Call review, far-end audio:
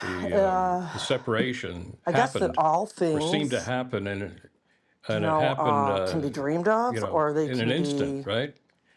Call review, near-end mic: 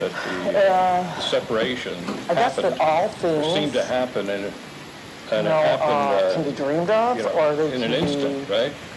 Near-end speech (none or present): none